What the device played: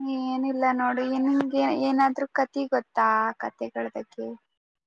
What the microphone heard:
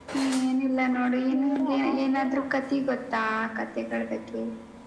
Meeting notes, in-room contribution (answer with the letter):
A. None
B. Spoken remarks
B